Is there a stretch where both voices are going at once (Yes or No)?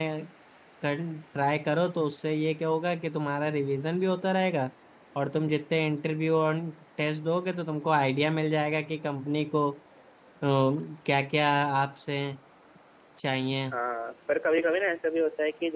No